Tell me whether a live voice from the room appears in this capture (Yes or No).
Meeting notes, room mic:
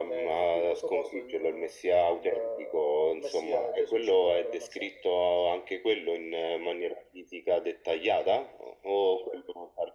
No